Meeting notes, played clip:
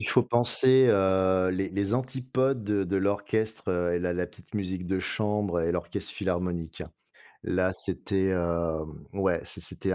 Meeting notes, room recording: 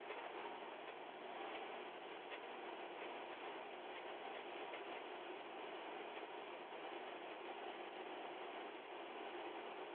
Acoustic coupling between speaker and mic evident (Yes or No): No